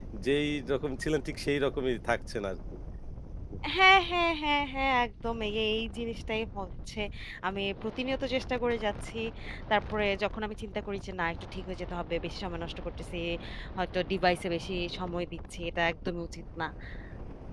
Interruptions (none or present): none